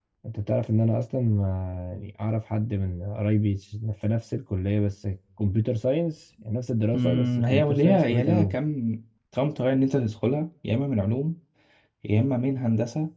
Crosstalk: present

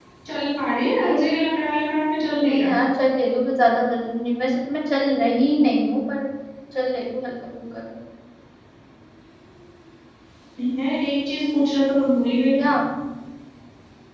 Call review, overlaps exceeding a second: none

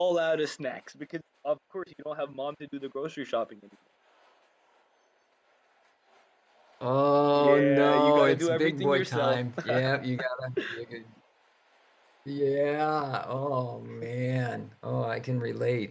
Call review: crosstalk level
present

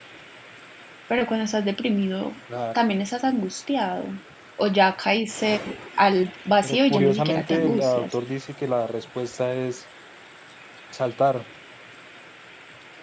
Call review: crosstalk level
present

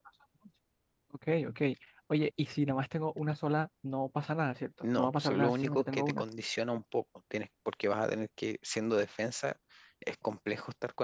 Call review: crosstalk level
present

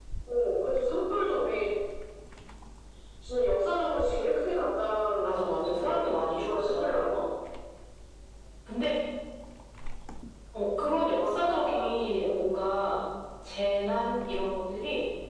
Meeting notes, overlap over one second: present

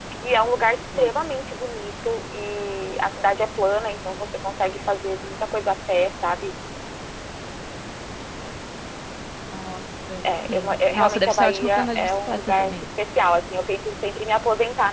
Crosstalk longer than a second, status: present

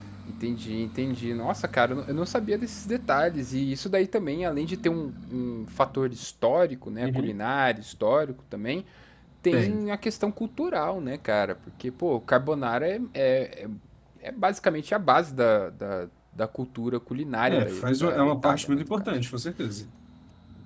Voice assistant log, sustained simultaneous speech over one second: present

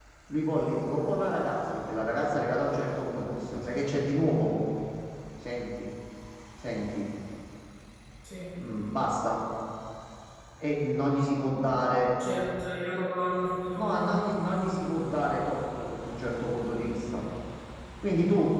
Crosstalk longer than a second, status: none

